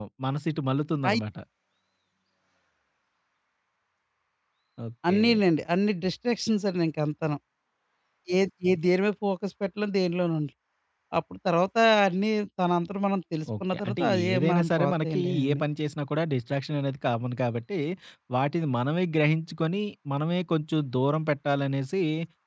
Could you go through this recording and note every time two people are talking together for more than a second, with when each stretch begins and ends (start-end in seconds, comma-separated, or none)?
13.6-15.6